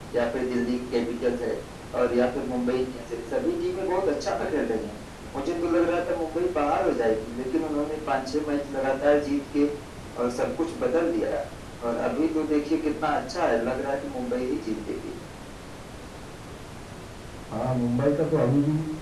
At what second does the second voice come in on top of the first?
none

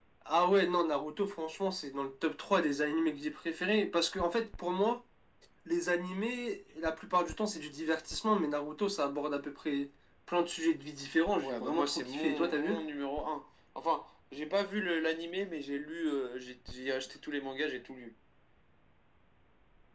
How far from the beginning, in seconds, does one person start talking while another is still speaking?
11.4 s

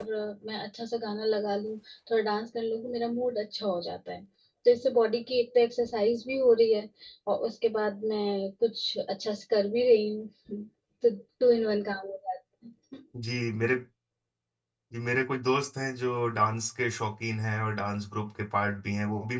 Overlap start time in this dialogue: none

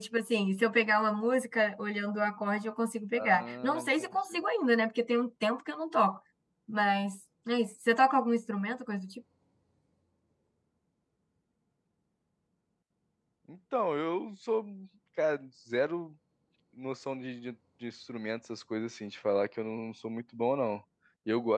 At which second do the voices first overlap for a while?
3.1 s

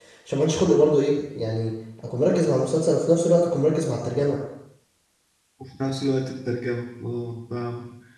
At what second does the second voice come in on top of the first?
none

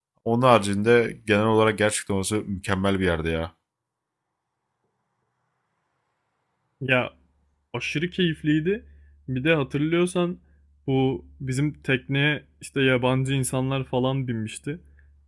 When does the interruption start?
none

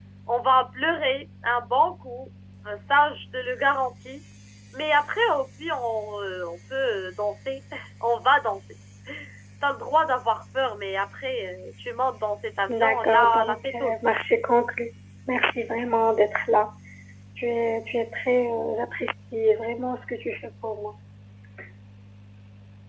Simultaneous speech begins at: 12.7 s

